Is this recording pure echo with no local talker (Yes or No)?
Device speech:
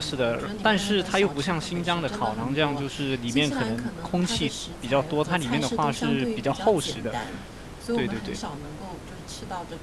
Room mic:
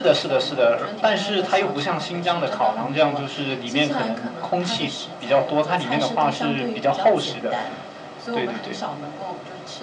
Yes